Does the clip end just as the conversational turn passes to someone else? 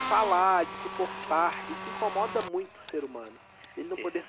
No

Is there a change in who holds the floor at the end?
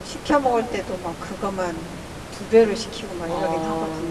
Yes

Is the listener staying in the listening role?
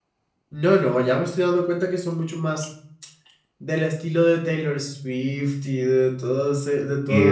No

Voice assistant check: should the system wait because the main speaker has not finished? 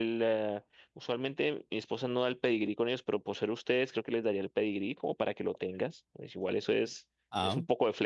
Yes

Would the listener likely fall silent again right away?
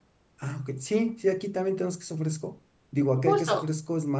Yes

